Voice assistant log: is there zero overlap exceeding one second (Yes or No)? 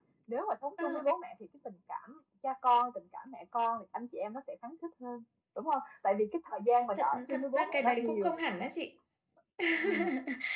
No